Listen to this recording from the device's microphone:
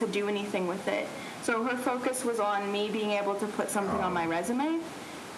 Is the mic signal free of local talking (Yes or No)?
No